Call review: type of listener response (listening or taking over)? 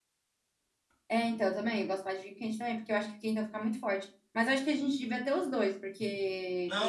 taking over